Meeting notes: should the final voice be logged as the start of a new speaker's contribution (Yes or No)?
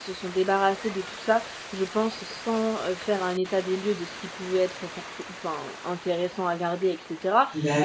No